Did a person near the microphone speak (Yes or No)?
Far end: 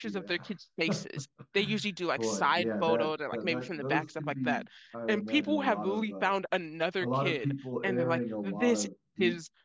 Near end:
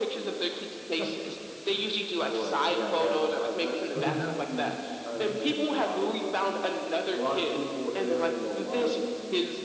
Yes